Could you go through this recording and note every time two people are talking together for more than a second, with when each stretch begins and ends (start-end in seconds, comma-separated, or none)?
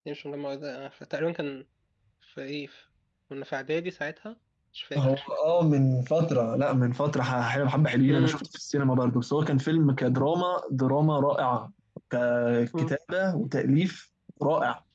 none